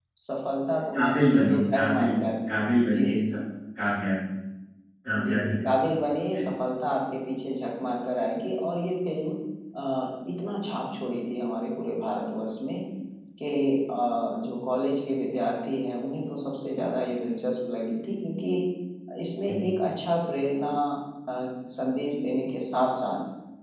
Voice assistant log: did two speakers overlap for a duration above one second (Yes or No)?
Yes